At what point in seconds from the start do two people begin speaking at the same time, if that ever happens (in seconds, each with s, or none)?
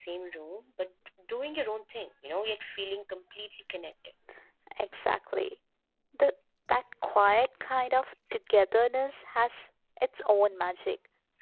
none